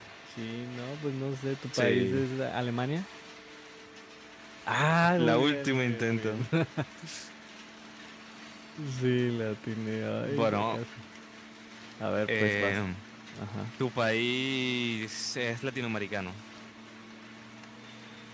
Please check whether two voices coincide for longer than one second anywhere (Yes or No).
Yes